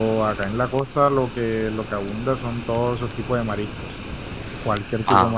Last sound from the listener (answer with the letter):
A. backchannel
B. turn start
A